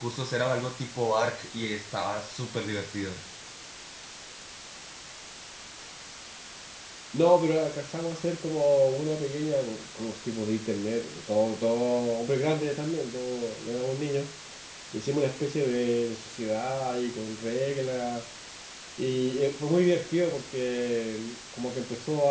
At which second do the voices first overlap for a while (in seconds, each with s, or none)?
none